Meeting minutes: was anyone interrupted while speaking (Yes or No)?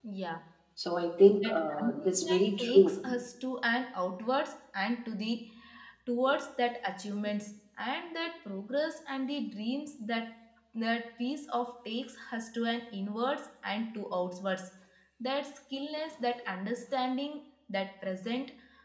Yes